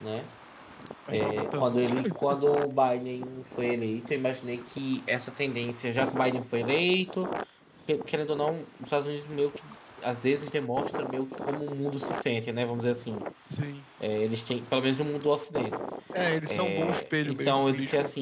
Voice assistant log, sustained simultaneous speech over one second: present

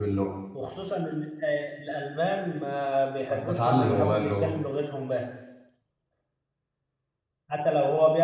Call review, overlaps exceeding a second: present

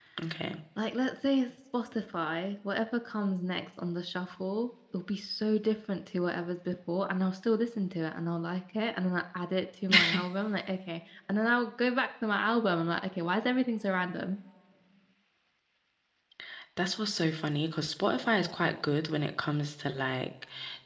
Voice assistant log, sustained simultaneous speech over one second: none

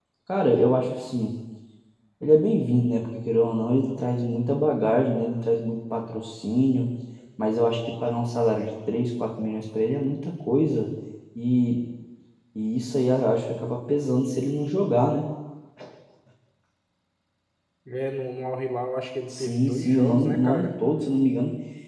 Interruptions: present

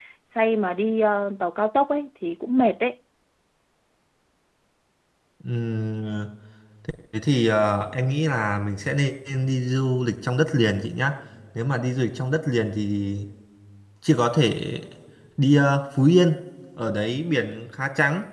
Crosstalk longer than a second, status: none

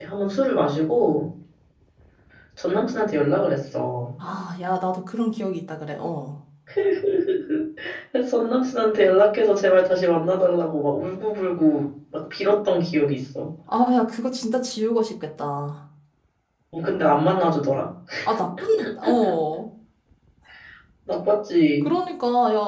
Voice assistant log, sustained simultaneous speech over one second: none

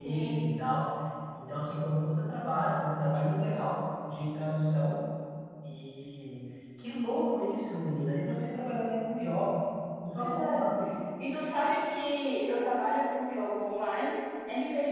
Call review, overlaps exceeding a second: none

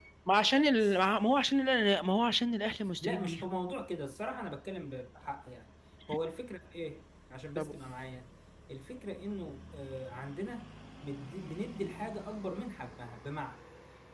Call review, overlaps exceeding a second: none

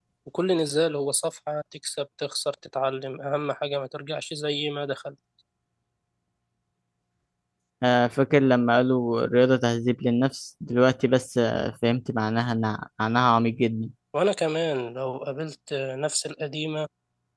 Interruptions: none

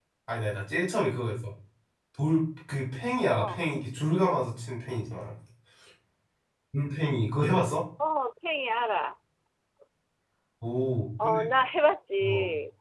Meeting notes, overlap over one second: none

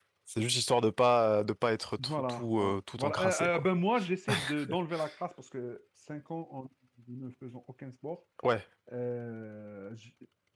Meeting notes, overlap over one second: present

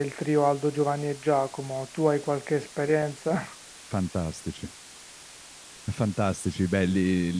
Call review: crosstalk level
none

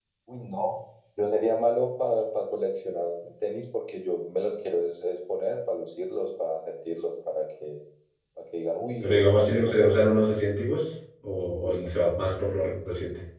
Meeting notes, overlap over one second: present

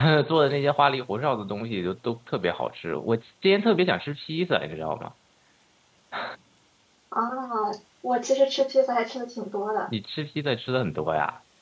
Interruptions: none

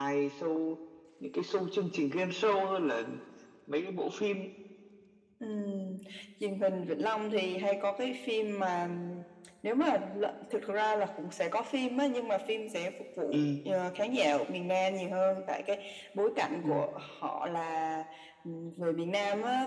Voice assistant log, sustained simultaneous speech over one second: none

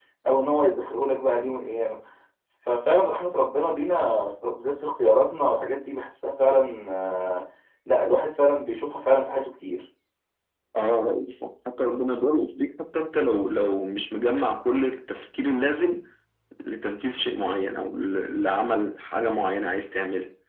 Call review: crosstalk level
none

